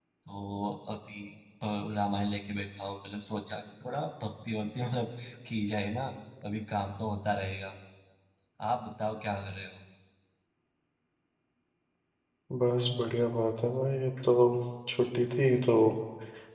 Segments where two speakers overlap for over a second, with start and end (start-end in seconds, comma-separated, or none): none